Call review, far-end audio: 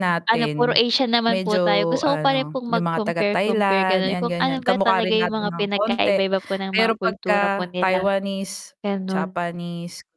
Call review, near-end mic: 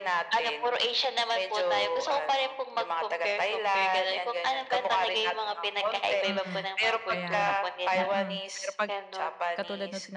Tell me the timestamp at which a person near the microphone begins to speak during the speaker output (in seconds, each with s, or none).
6.2 s